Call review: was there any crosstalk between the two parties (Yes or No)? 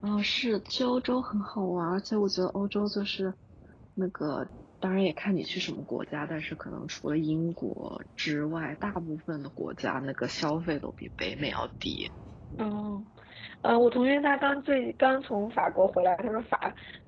No